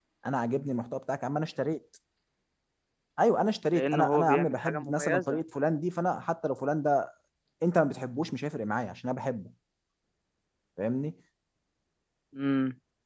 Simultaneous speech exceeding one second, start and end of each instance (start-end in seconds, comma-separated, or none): 3.7-5.4